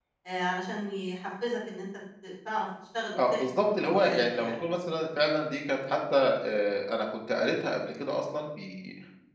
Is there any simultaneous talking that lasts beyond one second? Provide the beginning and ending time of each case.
3.2-4.6

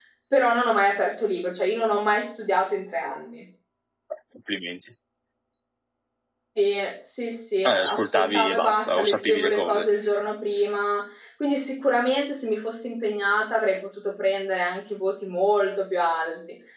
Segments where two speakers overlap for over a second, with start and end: 7.7-9.9

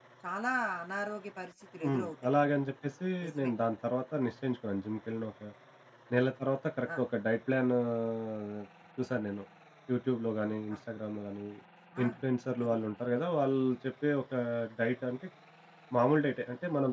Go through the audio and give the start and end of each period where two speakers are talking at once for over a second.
none

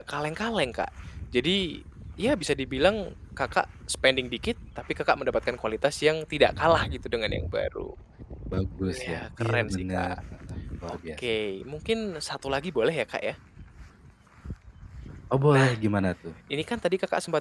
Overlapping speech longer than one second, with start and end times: 8.8-10.2

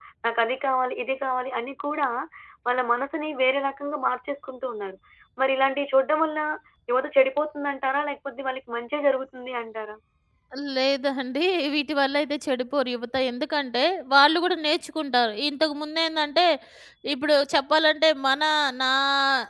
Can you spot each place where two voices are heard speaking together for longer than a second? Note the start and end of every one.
none

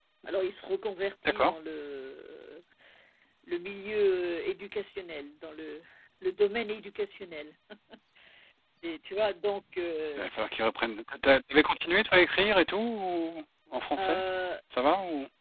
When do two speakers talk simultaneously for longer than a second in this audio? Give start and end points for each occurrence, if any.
none

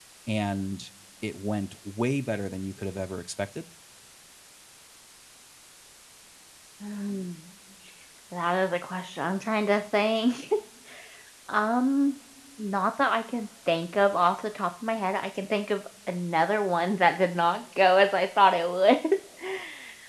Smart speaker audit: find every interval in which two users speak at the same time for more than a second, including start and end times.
none

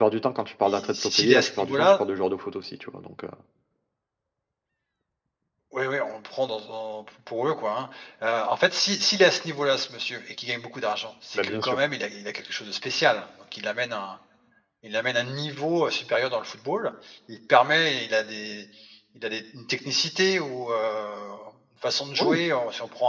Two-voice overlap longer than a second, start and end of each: 0.6-1.9

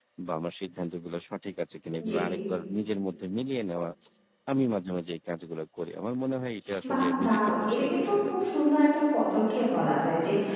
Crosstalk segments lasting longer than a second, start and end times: 6.9-8.5

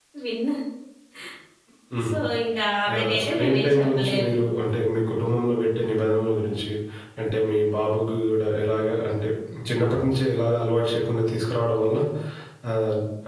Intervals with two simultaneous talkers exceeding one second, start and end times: 2.9-4.3

